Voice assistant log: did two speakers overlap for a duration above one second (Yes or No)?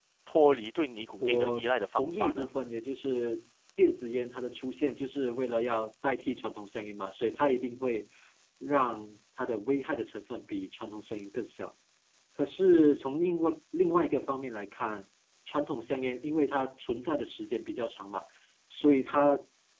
Yes